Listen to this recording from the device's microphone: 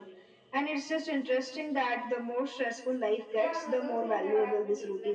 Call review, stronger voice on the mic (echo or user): echo